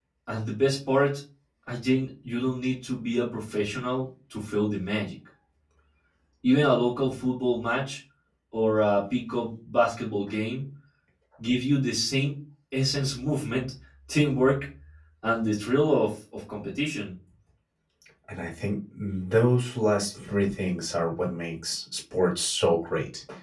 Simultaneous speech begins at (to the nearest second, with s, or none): none